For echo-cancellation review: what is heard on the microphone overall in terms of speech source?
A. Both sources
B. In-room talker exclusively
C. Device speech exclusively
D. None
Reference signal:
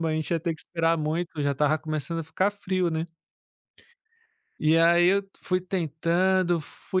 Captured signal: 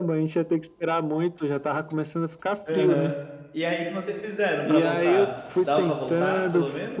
A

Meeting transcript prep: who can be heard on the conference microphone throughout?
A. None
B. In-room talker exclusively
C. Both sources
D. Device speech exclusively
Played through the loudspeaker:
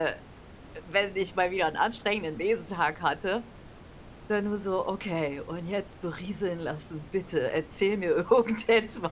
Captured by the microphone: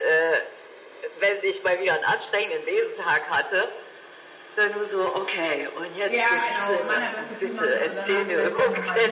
C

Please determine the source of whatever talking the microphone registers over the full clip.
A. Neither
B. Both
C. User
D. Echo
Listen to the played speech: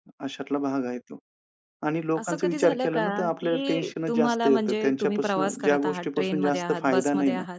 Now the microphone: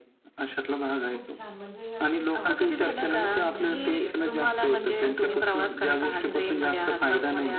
B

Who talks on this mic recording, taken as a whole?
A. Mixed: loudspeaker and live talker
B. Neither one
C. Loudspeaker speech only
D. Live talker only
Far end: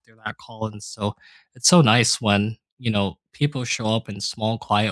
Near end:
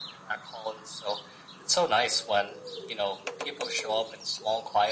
C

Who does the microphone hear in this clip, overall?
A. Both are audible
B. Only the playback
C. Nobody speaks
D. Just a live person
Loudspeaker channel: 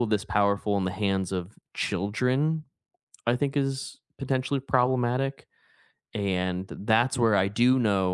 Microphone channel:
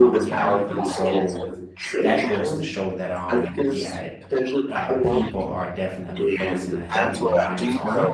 A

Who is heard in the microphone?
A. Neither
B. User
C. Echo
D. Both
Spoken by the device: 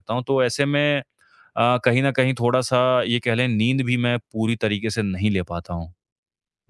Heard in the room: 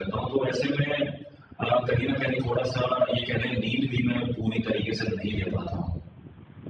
C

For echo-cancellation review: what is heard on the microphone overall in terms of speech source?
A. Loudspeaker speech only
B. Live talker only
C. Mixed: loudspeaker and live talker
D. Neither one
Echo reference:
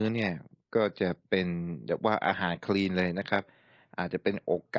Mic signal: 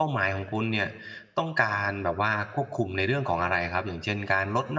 B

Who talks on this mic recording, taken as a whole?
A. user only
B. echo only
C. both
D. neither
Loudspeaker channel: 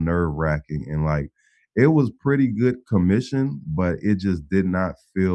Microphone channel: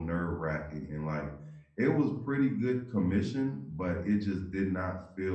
B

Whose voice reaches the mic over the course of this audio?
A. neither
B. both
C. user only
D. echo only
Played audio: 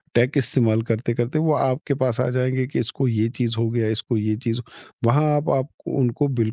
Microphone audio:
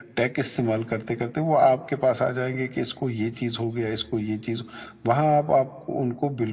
D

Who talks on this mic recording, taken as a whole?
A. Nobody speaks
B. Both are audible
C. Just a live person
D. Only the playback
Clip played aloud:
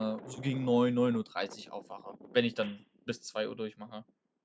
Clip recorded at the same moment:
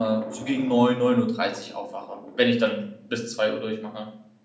D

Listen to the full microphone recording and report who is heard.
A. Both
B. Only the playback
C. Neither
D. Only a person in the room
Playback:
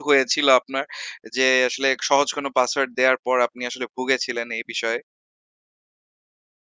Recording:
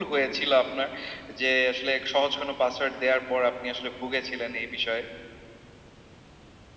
B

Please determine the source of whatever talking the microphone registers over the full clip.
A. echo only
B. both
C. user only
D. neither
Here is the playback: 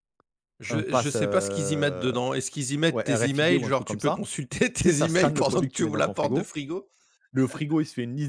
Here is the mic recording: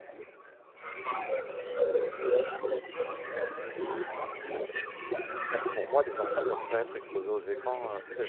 B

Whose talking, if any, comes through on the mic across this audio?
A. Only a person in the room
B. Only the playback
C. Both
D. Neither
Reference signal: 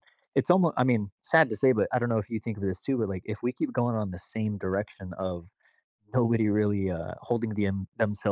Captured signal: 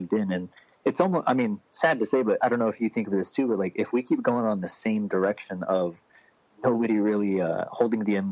B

